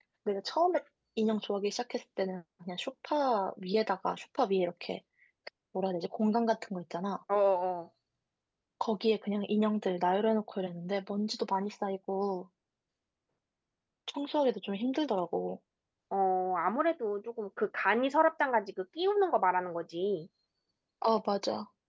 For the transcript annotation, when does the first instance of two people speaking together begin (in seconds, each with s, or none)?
none